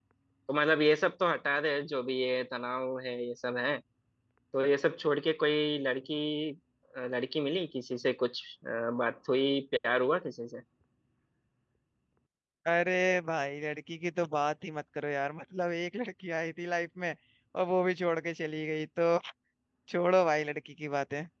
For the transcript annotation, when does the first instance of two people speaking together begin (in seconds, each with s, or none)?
none